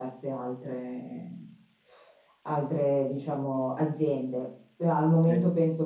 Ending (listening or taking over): listening